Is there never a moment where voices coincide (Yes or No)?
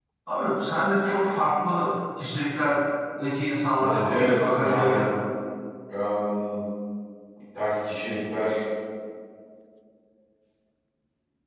No